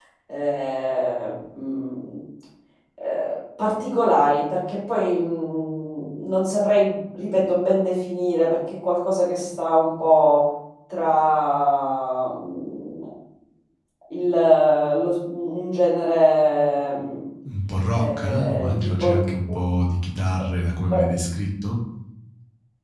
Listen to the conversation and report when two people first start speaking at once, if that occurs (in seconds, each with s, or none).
17.9 s